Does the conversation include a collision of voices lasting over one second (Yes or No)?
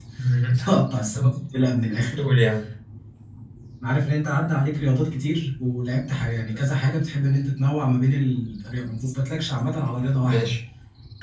No